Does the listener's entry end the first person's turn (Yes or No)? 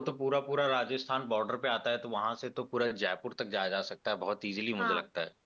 Yes